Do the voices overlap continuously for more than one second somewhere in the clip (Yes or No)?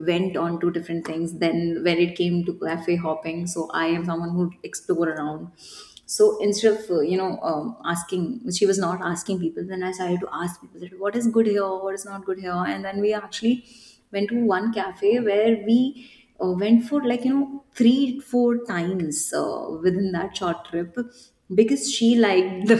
No